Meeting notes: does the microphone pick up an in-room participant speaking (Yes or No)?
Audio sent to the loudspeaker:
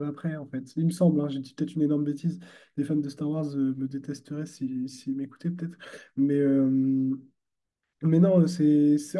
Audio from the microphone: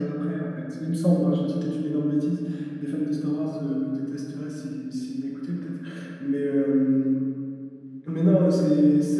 No